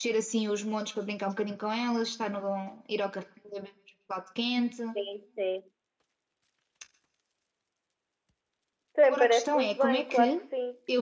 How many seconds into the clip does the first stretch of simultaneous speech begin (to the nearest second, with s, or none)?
9 s